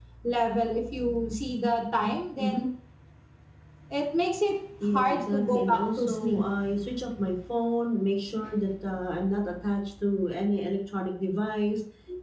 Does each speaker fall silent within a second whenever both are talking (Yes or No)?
No